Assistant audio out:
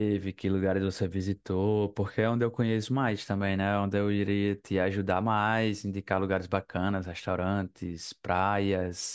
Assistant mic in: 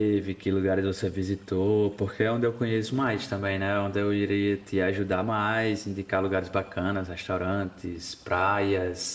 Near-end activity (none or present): none